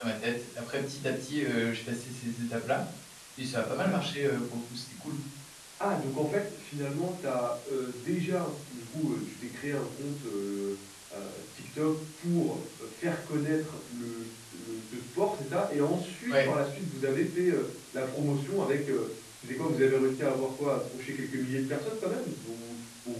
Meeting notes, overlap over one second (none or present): none